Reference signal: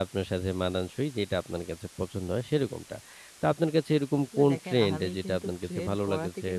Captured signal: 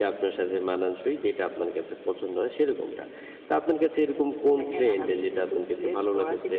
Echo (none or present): present